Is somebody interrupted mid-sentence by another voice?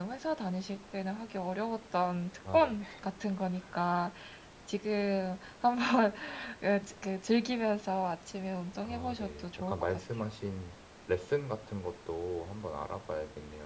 Yes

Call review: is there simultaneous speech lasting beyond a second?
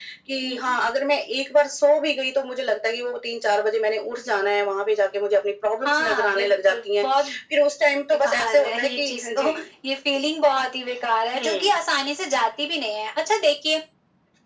Yes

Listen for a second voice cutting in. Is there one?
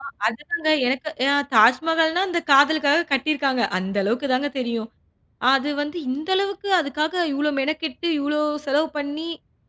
No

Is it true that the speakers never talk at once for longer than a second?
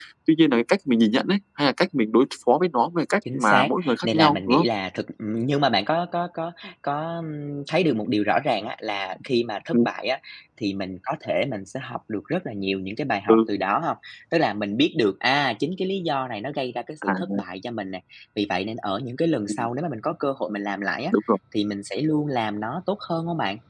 No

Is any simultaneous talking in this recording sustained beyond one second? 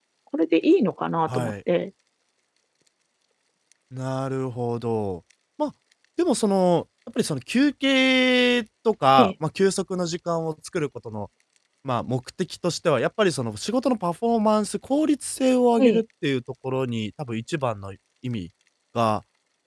No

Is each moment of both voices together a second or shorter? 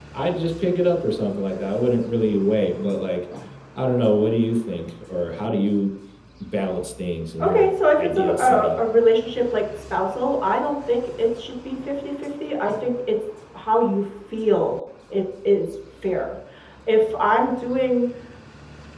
No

